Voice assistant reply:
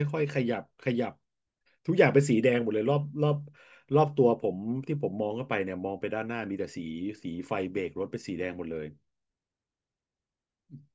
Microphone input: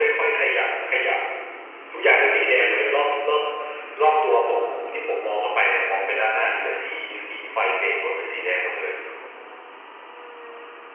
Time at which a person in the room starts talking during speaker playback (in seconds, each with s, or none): none